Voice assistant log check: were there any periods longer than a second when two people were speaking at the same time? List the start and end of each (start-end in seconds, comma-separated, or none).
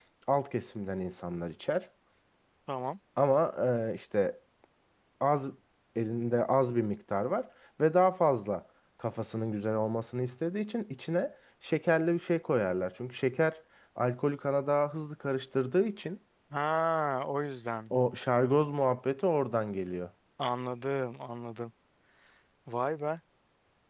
none